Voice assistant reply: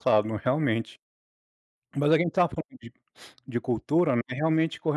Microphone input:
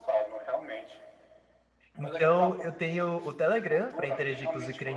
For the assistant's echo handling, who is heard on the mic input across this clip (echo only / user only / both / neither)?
both